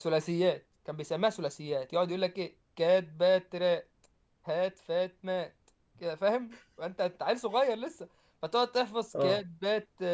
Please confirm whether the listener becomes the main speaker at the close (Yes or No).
No